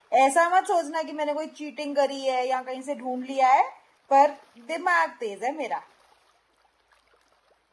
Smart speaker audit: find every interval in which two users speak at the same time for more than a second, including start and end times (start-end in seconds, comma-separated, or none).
none